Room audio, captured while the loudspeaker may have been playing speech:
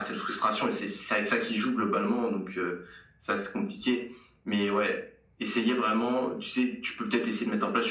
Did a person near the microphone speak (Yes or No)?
No